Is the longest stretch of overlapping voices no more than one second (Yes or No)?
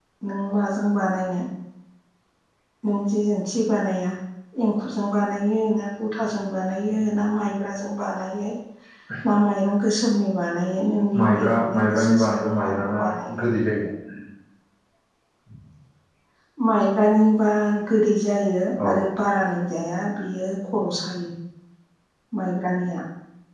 No